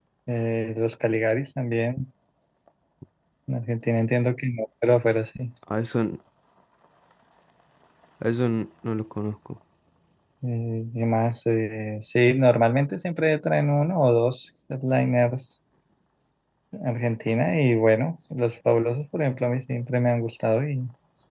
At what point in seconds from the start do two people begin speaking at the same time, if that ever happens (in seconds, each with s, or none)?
none